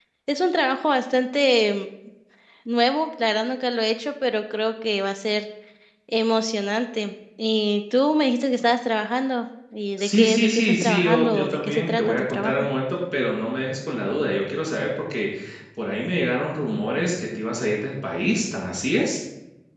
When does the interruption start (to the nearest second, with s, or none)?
10 s